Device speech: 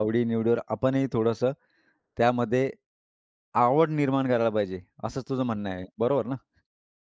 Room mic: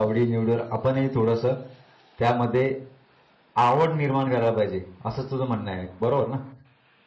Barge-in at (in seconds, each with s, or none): none